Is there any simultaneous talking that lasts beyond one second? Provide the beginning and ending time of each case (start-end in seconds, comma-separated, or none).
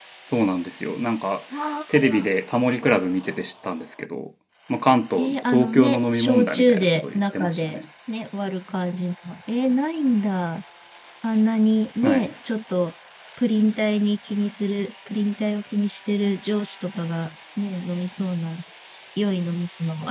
5.2-7.8